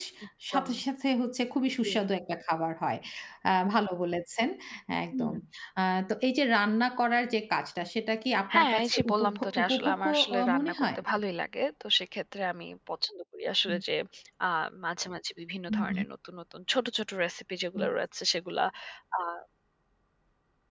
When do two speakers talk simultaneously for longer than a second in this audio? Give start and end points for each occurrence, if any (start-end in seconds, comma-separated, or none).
8.5-11.0